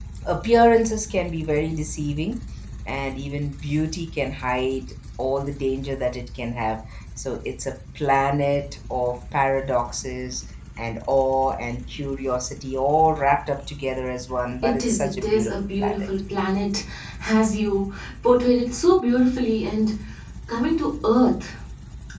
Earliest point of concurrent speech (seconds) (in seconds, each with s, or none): 14.6 s